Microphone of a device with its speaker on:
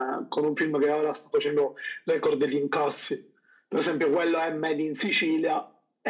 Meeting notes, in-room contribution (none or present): none